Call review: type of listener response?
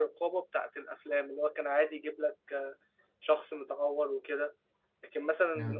listening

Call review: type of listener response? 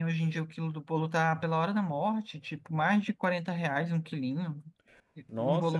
taking over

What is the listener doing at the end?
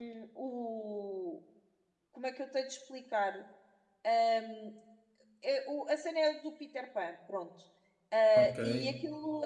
listening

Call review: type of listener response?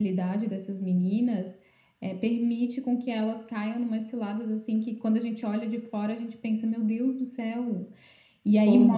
listening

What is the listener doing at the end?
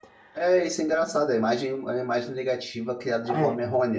listening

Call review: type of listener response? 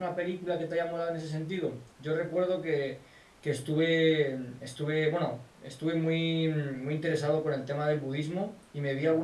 listening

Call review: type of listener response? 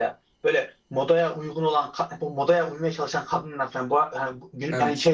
listening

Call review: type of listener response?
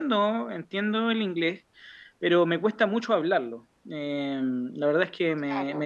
listening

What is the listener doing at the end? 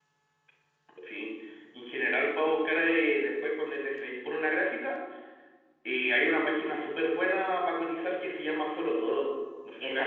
taking over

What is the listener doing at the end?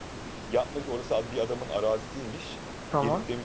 listening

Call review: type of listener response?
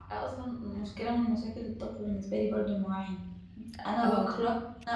listening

